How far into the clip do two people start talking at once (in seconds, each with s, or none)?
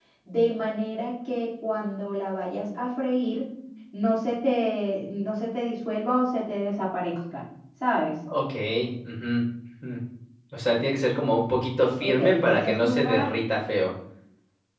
12.0 s